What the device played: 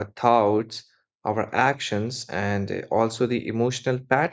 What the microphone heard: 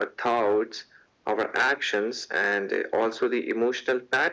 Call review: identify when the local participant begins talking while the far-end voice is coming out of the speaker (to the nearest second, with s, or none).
none